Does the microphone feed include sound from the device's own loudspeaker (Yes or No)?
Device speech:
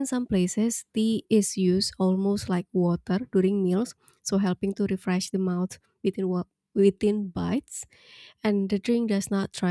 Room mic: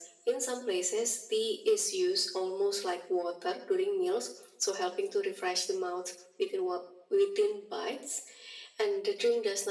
Yes